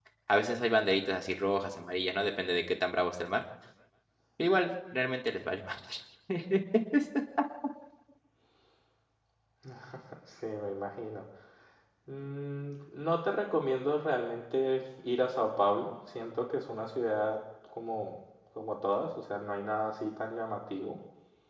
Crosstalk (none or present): none